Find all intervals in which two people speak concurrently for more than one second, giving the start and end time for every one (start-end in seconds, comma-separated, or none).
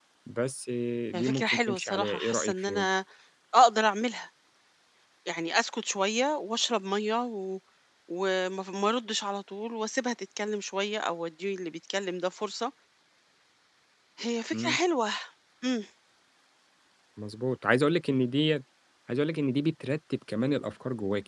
1.1-2.9